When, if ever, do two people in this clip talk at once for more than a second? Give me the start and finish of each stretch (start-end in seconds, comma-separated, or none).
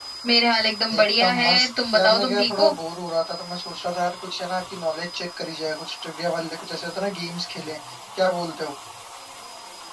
0.9-2.7